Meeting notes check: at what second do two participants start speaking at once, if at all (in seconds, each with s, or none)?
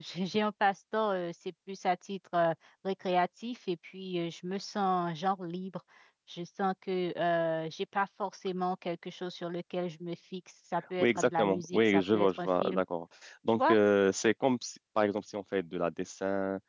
11.0 s